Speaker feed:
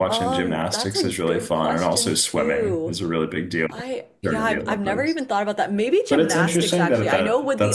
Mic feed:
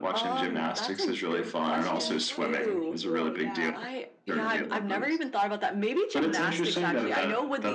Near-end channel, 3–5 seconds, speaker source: both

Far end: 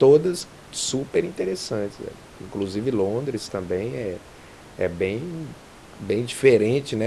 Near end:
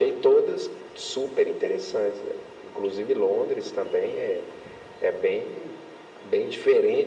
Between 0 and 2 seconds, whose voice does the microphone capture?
echo only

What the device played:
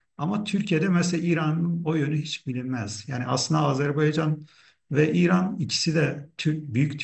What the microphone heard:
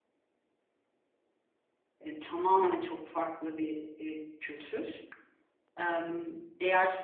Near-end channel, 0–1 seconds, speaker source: neither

